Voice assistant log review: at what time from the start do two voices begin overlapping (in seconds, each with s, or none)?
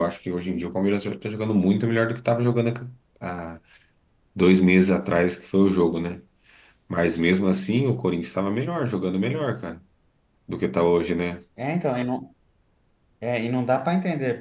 none